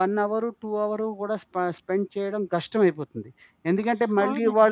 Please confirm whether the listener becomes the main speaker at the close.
Yes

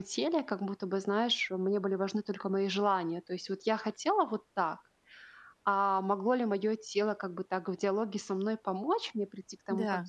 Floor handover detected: No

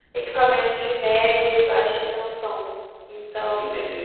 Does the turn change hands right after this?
Yes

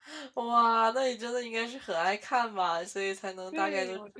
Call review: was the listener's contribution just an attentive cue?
No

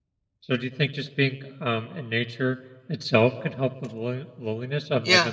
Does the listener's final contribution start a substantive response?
Yes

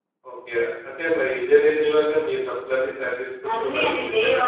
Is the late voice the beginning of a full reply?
Yes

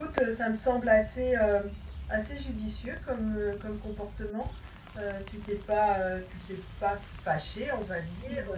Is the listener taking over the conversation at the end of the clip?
No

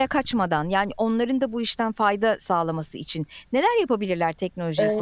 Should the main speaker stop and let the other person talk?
Yes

